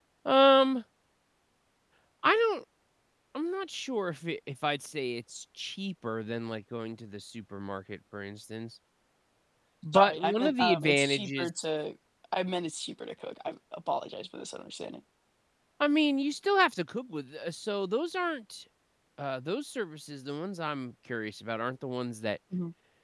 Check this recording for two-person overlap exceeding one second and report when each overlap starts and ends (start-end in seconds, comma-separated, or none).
9.9-11.5